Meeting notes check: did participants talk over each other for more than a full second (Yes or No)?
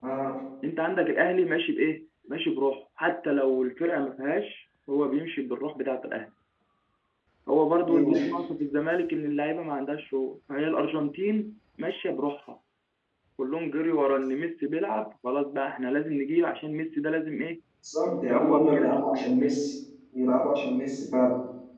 Yes